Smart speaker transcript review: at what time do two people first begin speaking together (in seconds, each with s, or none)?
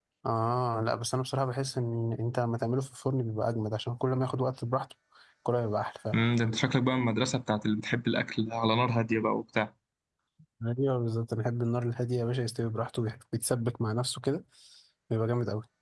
none